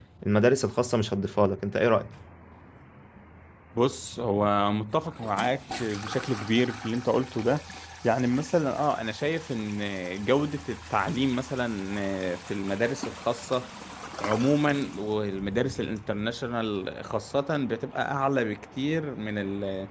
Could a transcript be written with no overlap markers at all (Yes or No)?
Yes